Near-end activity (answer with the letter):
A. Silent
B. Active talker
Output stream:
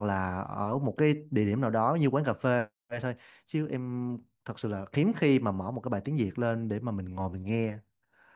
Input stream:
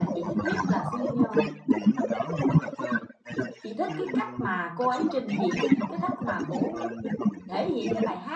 B